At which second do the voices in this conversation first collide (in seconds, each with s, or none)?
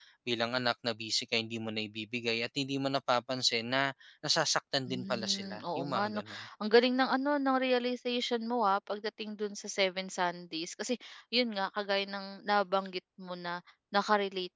4.9 s